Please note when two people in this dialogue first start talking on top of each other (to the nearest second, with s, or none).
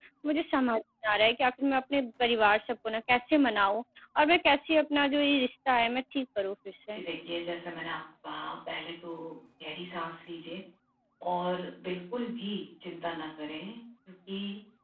none